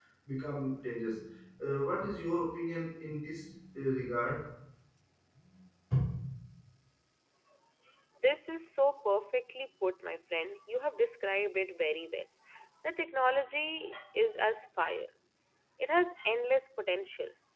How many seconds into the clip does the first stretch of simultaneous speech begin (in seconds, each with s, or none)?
none